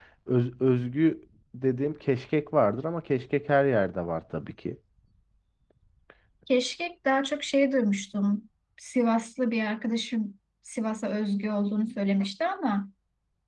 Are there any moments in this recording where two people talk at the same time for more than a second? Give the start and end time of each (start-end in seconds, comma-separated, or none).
none